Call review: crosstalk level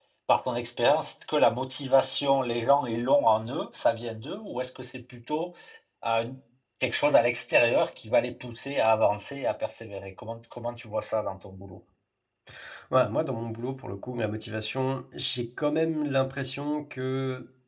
none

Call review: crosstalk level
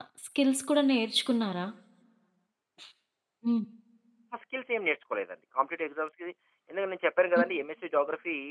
none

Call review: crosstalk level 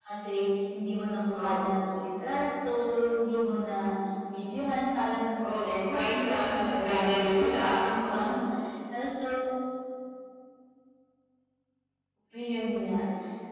present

